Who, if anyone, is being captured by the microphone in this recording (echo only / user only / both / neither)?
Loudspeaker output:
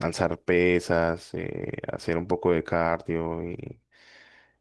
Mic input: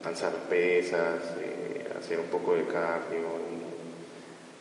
echo only